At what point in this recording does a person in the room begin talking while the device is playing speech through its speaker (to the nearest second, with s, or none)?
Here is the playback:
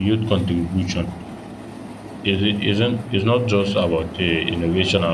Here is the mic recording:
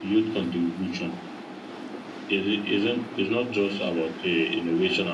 none